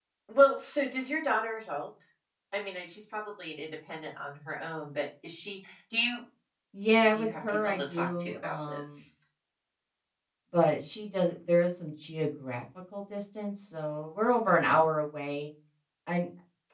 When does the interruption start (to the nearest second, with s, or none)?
7 s